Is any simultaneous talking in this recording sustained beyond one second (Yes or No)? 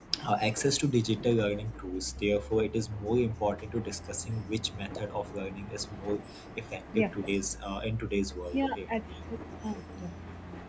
No